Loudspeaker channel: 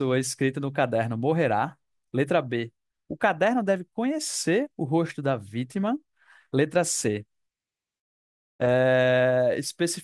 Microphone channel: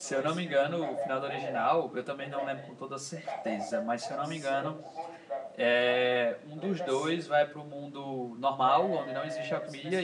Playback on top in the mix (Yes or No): No